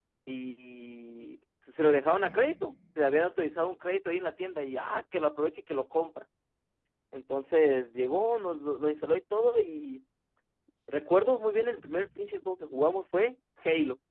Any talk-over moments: No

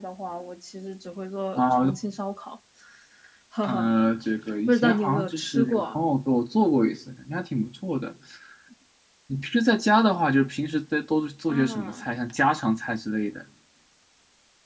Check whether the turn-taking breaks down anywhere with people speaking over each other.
Yes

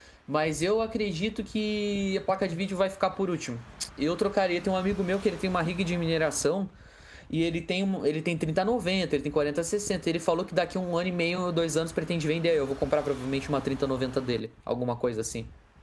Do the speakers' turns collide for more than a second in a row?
No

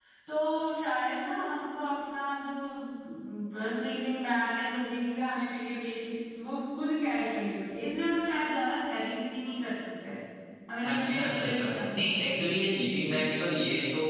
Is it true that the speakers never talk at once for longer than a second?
No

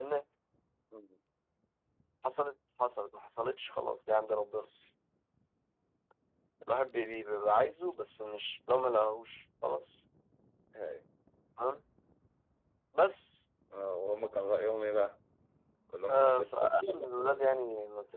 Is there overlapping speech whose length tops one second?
Yes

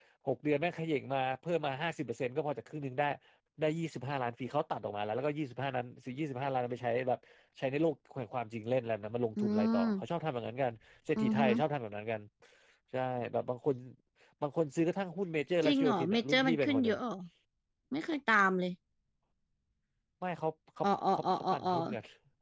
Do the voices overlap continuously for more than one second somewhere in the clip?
Yes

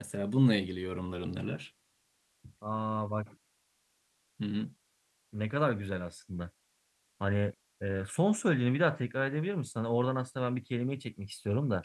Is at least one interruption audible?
No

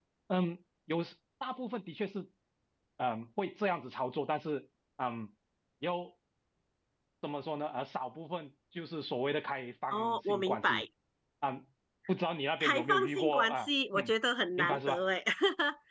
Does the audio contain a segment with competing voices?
Yes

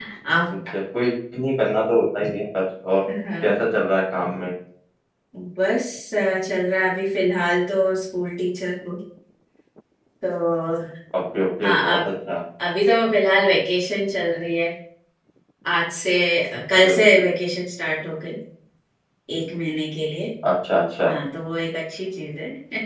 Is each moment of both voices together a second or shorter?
Yes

